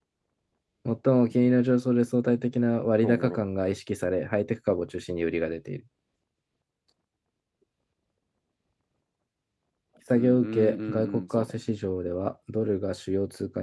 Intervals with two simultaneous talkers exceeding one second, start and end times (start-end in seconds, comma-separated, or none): 10.1-11.6